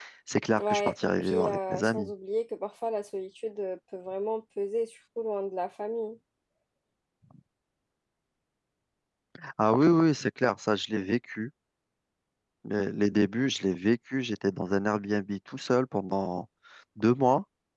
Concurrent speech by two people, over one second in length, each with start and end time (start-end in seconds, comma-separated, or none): 0.6-2.1